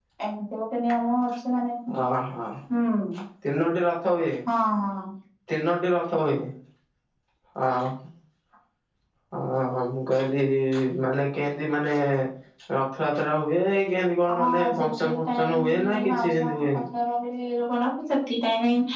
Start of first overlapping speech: 14.3 s

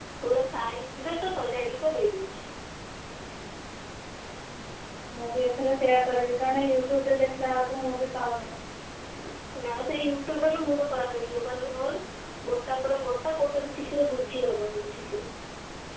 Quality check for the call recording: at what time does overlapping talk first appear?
none

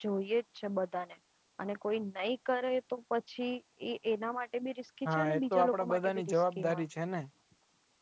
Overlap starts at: 5.0 s

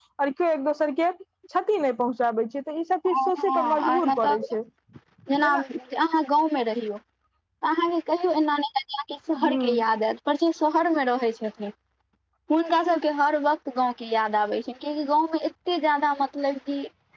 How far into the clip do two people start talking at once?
3.1 s

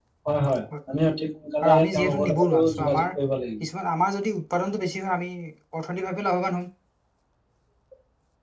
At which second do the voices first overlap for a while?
1.6 s

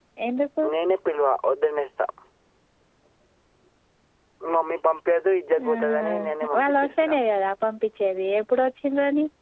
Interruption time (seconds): 5.6 s

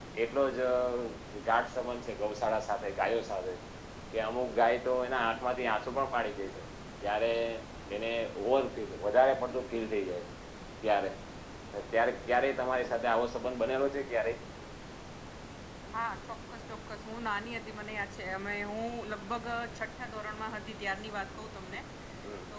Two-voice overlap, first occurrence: none

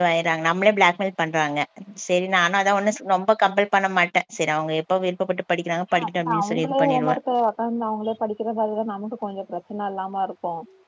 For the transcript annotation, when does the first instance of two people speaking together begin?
5.9 s

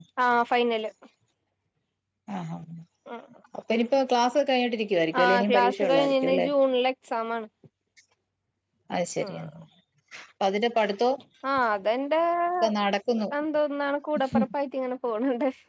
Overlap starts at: 5.2 s

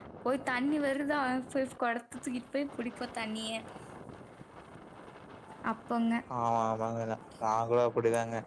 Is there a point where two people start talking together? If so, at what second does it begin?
none

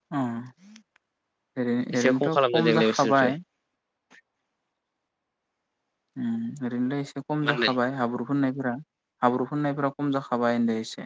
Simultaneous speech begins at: 2.0 s

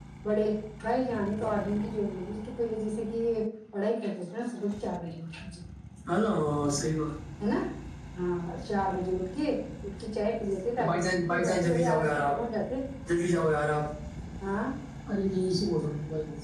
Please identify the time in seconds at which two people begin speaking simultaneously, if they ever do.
10.8 s

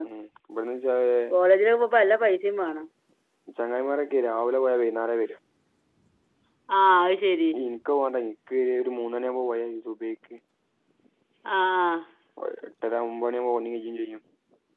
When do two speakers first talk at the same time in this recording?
none

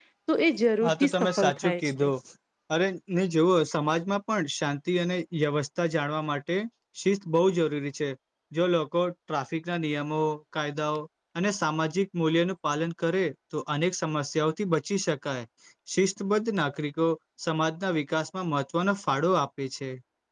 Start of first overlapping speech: 0.8 s

